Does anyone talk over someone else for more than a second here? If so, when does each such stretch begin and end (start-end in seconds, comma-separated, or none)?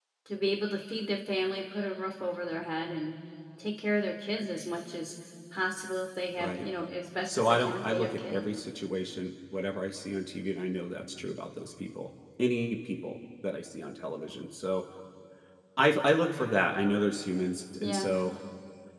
7.3-8.5